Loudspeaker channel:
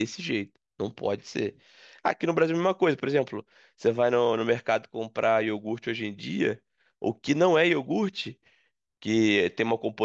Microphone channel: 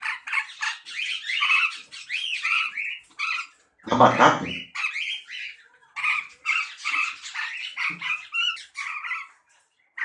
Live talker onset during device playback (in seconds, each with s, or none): 3.9 s